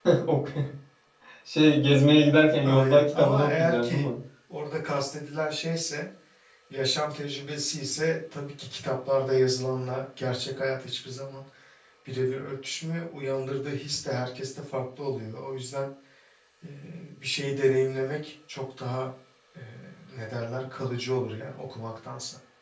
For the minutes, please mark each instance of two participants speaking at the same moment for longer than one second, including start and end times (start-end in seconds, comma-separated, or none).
2.6-4.1